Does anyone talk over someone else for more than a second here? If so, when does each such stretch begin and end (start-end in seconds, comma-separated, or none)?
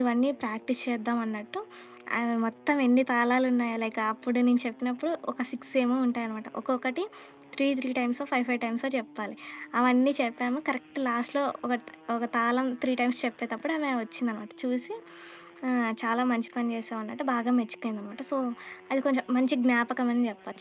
none